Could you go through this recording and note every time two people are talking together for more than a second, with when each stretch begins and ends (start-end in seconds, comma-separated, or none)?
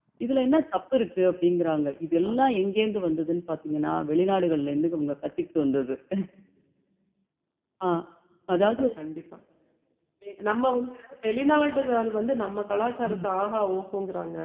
none